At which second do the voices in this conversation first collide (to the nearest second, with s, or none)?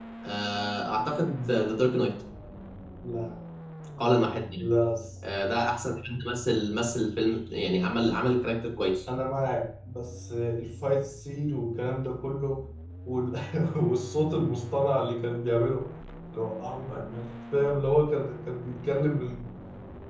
none